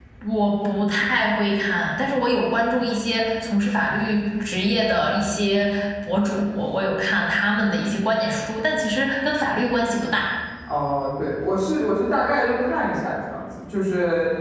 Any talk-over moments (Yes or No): No